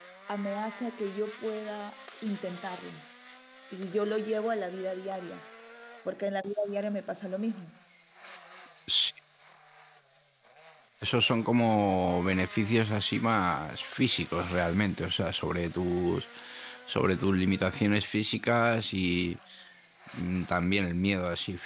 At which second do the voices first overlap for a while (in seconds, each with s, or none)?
none